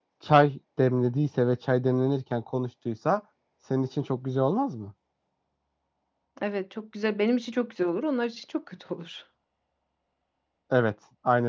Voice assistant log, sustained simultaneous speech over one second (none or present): none